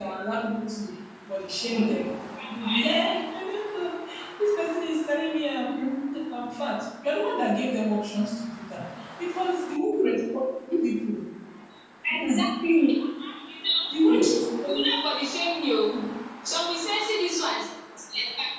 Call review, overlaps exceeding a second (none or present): none